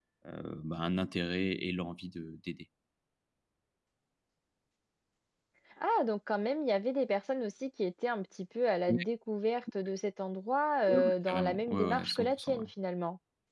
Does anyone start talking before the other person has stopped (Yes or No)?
Yes